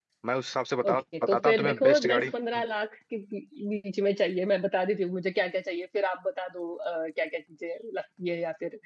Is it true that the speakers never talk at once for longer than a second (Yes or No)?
No